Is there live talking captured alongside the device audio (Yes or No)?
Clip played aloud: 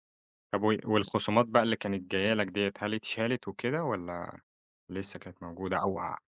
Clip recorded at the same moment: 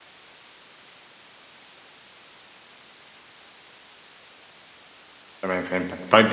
Yes